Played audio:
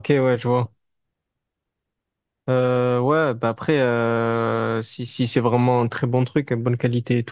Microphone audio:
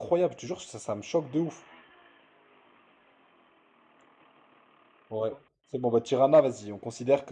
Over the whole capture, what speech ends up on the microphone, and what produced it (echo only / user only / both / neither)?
user only